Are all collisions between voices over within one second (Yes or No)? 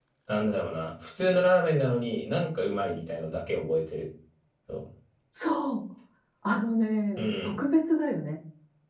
Yes